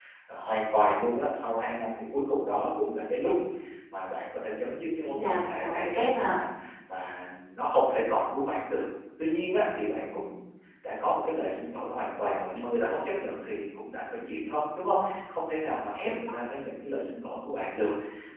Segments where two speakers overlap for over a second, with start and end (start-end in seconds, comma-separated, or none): 5.1-6.4